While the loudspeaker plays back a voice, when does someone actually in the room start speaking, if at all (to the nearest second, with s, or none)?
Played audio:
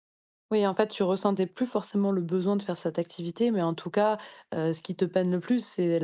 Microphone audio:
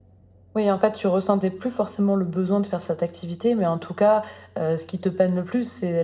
none